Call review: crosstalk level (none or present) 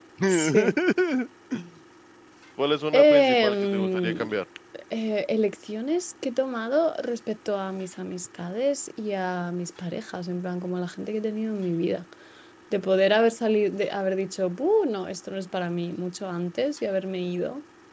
present